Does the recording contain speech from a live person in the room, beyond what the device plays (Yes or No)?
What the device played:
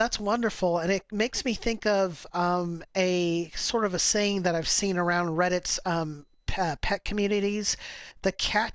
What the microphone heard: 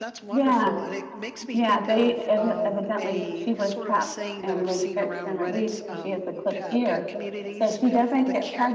Yes